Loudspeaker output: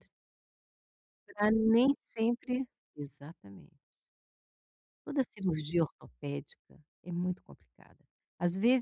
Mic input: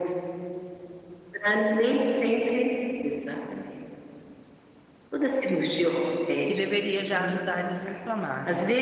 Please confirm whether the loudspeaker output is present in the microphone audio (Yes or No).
Yes